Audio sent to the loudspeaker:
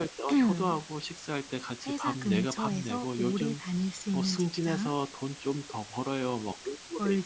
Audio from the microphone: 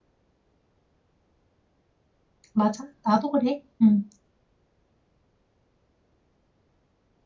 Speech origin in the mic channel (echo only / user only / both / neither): user only